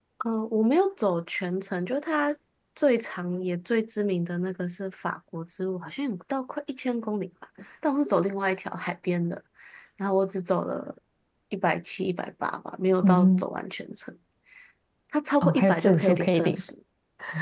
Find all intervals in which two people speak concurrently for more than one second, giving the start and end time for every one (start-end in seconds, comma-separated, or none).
15.4-16.6